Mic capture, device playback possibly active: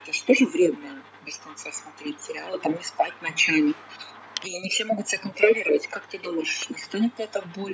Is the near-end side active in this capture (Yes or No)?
No